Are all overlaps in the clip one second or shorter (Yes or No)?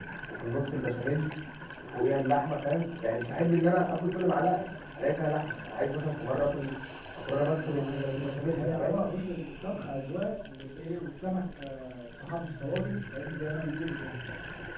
No